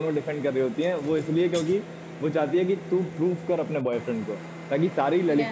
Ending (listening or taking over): listening